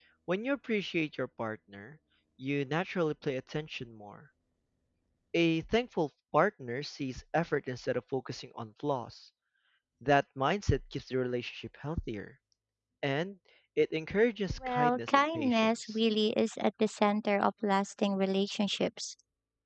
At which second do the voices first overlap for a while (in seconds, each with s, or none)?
14.6 s